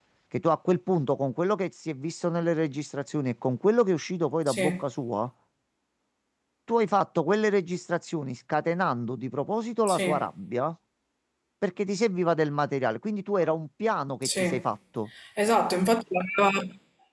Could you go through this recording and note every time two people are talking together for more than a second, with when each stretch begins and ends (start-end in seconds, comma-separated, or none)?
none